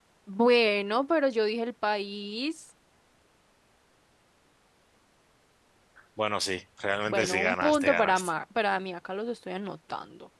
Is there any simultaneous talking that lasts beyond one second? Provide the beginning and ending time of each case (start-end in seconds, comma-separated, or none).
7.1-8.3